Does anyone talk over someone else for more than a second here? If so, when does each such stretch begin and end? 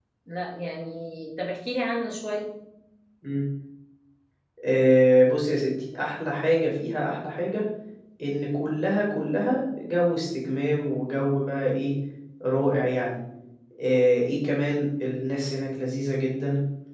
none

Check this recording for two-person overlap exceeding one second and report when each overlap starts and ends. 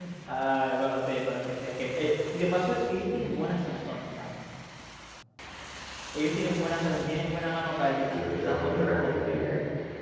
8.0-9.4

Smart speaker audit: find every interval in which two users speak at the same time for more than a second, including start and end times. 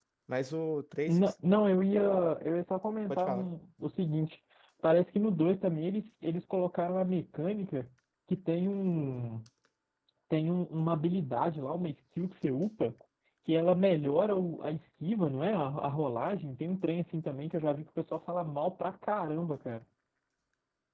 none

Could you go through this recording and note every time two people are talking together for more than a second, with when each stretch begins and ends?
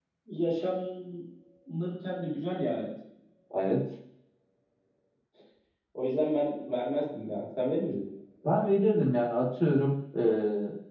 none

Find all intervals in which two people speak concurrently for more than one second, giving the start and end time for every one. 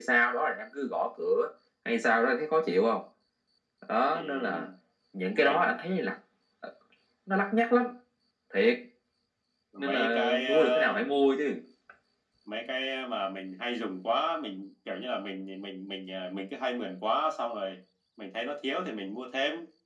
9.8-11.1

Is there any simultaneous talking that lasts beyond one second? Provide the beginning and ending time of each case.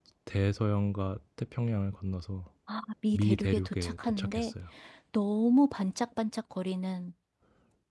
3.1-4.5

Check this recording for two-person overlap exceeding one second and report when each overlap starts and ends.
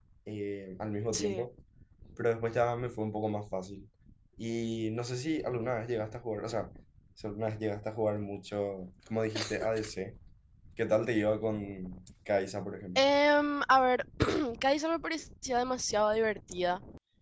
none

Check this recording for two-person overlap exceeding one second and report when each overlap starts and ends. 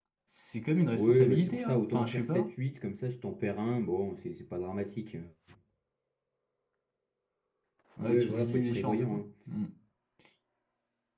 1.0-2.5, 8.0-9.2

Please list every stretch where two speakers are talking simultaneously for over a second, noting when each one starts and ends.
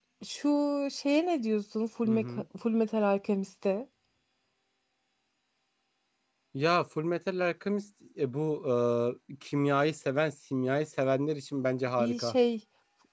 none

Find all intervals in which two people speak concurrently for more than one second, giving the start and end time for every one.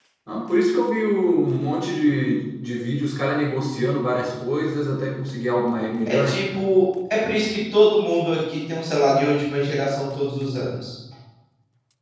none

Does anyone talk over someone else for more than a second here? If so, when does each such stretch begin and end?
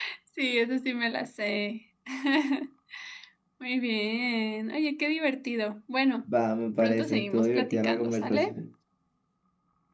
6.8-8.5

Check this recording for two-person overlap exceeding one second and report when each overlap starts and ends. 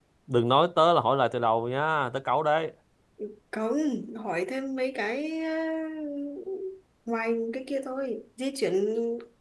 none

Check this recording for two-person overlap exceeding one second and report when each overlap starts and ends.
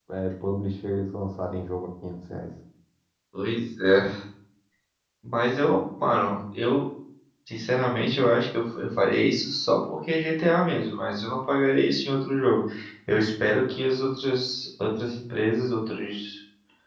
none

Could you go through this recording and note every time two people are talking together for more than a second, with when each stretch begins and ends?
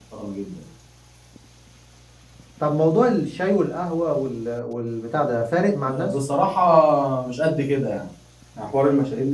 none

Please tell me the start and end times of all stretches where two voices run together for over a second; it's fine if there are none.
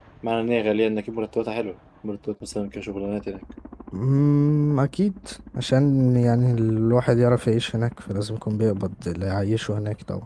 none

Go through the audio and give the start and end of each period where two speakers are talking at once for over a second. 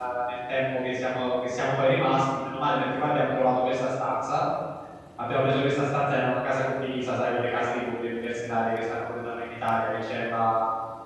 none

